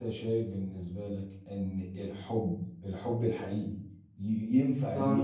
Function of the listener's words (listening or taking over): listening